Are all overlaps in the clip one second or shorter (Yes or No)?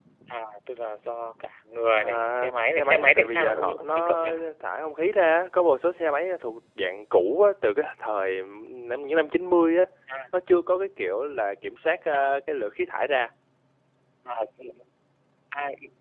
No